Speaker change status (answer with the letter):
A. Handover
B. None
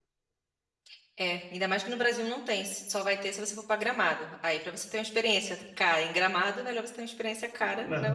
A